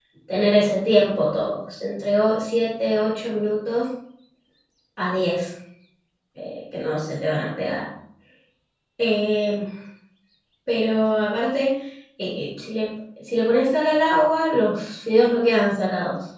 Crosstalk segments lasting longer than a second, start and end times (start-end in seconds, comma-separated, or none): none